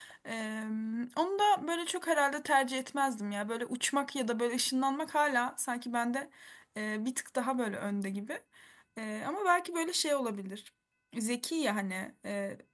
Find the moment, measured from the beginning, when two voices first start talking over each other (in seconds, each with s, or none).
none